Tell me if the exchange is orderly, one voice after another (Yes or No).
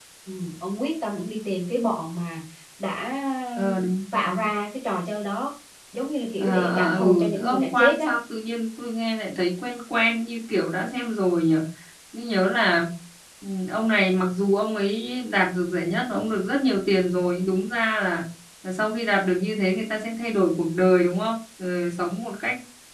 No